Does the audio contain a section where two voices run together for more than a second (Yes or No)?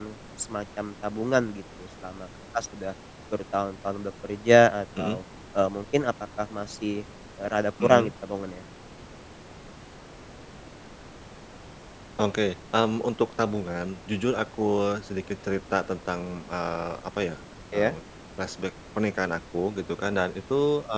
No